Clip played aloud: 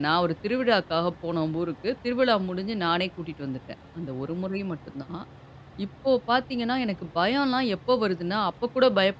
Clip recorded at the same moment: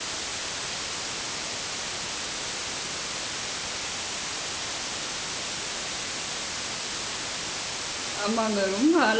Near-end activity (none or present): present